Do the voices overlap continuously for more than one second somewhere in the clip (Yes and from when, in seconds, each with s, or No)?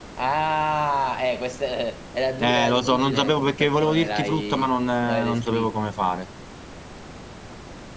Yes, from 2.4 s